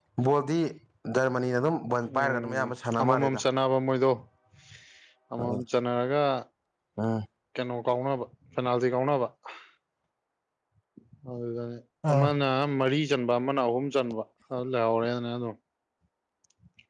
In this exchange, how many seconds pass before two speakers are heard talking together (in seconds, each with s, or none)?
2.2 s